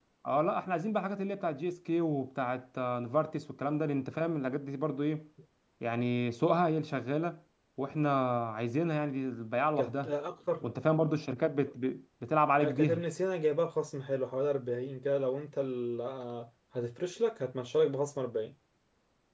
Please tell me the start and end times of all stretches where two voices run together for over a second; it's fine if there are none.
none

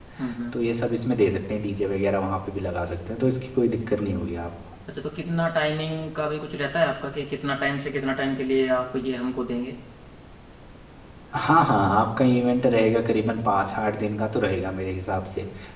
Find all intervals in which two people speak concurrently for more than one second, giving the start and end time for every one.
none

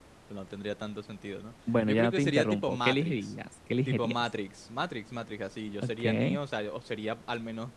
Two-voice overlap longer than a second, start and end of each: 1.7-3.3

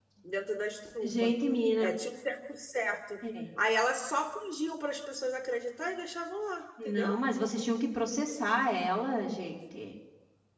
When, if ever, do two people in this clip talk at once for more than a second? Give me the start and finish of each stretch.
none

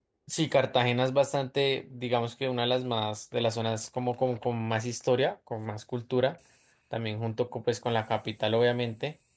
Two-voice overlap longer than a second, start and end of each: none

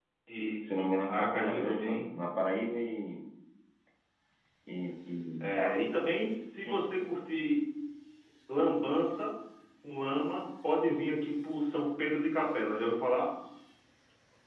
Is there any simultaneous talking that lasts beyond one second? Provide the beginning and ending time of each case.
0.6-2.0

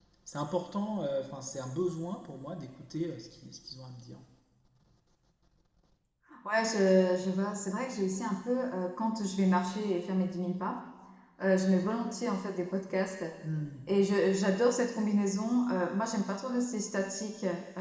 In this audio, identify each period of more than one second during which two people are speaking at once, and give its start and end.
none

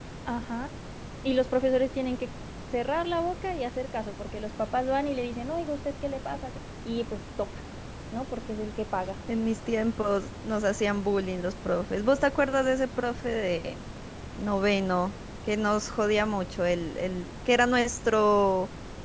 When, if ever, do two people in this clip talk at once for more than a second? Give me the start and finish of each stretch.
none

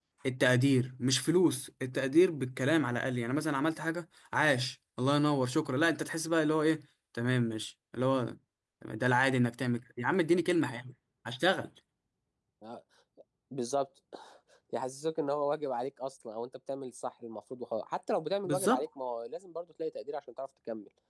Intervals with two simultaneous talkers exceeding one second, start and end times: none

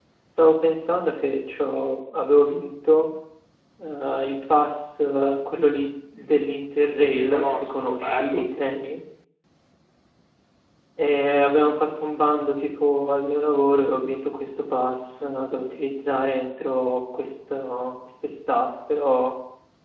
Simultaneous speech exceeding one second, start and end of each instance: 7.0-8.4

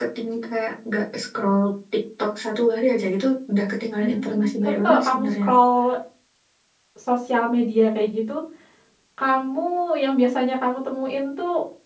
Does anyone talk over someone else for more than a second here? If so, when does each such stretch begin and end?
4.0-5.5

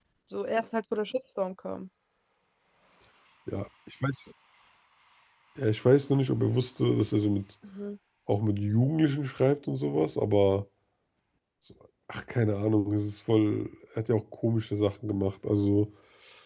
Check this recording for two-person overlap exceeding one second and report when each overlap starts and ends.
none

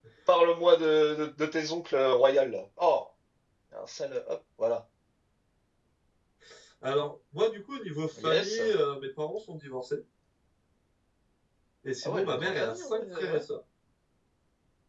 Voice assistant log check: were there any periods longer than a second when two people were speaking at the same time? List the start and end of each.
12.0-13.4

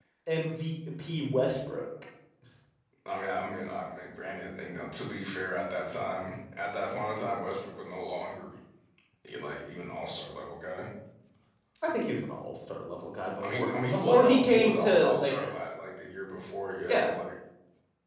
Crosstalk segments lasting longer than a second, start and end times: 13.4-15.7

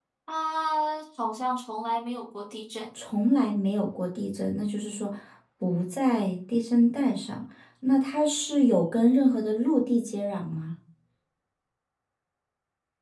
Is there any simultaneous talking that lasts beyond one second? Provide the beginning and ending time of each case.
none

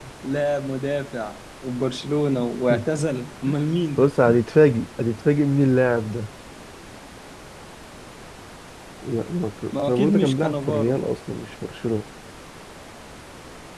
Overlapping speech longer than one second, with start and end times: 9.9-11.1

